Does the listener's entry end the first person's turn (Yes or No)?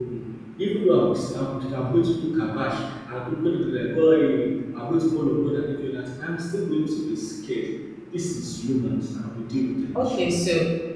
Yes